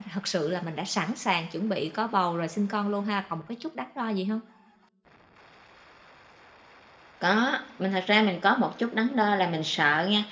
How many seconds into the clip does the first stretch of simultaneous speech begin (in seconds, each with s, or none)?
none